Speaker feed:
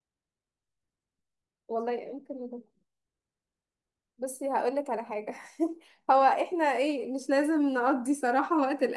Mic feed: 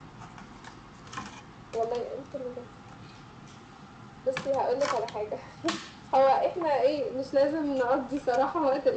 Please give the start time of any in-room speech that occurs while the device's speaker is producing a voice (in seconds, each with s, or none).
none